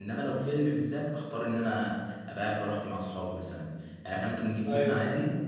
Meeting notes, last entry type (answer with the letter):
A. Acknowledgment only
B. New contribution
A